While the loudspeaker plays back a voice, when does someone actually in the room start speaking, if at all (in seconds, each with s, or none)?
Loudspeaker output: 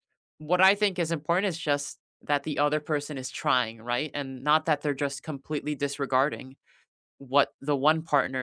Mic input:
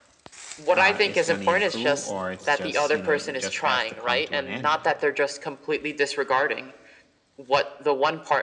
0.7 s